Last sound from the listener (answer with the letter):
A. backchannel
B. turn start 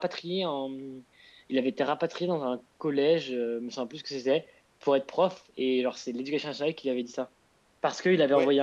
A